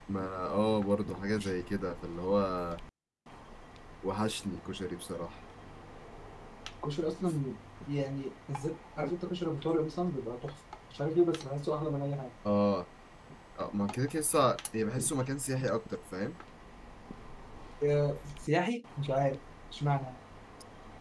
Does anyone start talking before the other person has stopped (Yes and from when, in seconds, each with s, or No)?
No